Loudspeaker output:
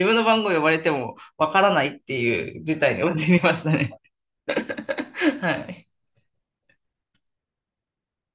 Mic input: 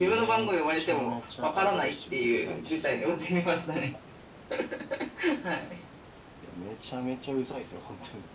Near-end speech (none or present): present